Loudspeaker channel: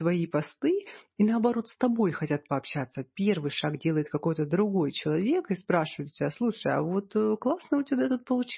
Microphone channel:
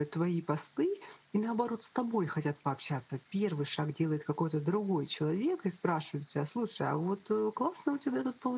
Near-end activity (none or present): none